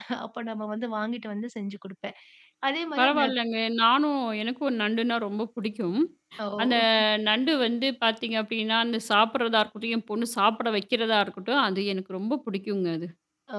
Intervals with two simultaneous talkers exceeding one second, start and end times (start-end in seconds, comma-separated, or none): none